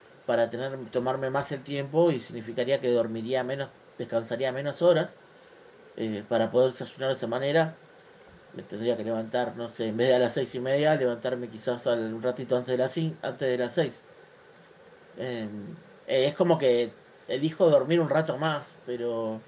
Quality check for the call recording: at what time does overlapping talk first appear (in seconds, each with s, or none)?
none